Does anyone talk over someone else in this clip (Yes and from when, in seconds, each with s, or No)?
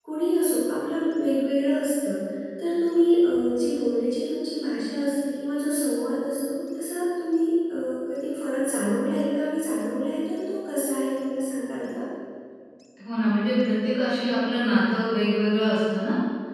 No